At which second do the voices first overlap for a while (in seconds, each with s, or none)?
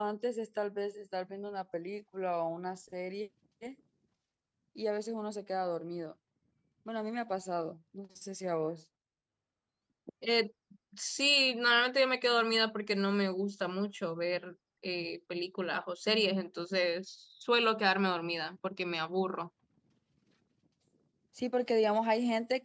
none